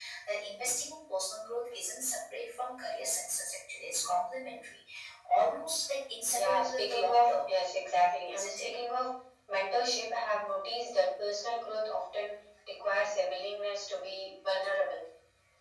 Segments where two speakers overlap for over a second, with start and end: 6.3-7.5

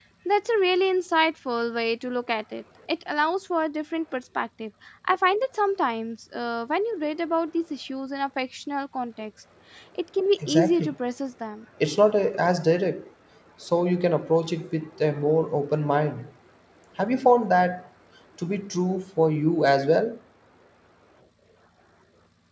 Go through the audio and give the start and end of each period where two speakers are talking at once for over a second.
none

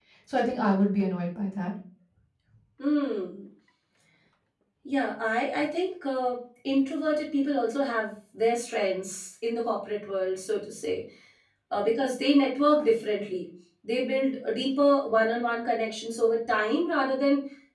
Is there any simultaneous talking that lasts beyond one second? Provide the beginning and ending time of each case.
none

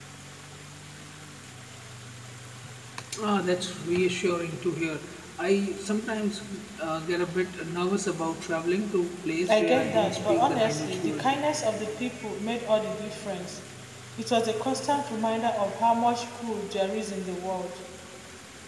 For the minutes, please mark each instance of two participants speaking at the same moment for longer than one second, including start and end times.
9.5-11.4

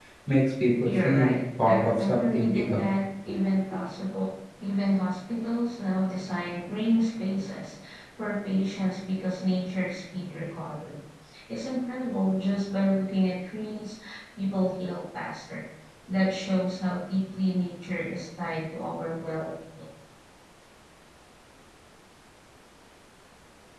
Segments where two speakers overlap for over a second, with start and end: 0.8-2.8

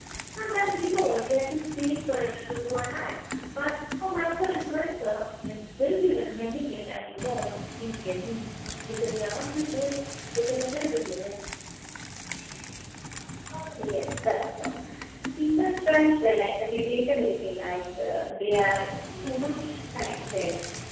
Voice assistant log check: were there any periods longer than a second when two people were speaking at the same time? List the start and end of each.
none

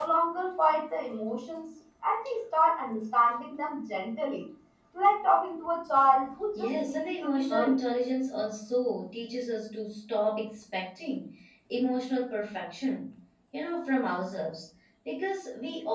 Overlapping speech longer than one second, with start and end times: 6.6-7.8

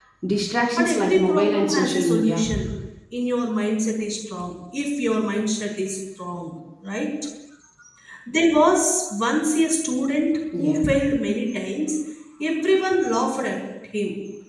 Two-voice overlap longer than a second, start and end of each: 0.8-2.4

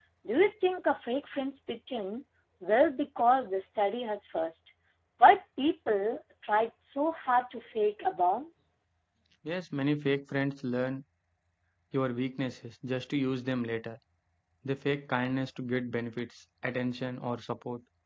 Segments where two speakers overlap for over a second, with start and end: none

